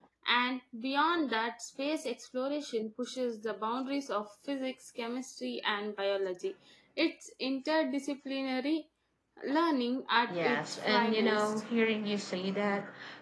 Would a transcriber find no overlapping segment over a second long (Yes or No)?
No